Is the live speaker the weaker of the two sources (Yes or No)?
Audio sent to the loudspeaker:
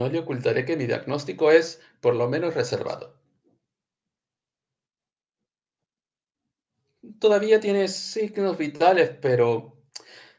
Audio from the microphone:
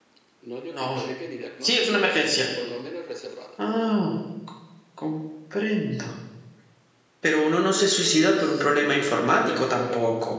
No